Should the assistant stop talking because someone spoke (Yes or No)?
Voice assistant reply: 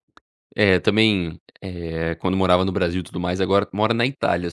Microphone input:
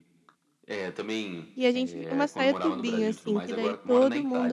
Yes